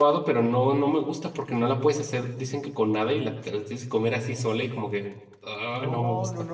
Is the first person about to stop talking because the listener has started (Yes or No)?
Yes